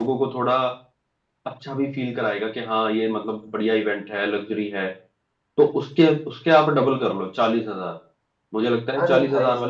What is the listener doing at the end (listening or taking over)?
taking over